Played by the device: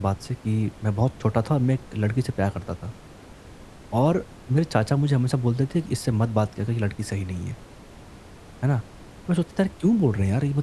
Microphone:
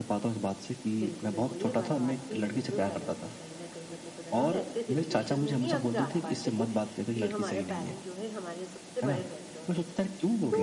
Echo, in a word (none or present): present